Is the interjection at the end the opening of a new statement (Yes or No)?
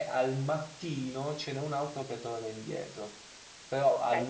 Yes